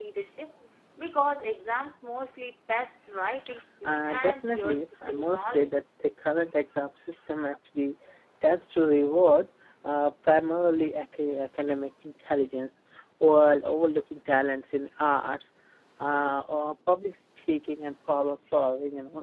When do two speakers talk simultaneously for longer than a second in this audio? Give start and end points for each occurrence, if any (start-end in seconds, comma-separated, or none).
3.8-5.7